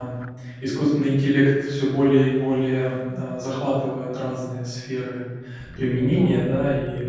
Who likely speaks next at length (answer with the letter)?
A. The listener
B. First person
B